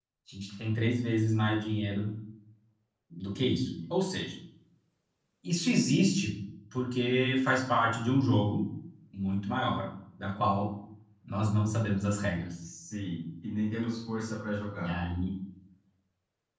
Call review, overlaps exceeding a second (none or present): none